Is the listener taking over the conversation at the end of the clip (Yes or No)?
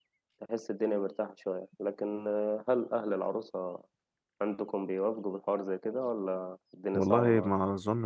Yes